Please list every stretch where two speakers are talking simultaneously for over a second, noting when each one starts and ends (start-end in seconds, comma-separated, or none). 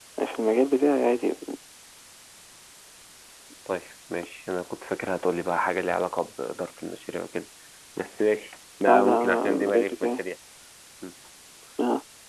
8.9-10.2